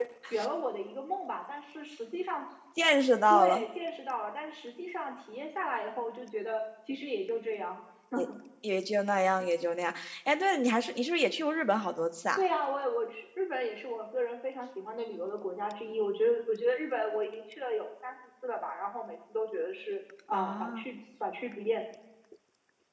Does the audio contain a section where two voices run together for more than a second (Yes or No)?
No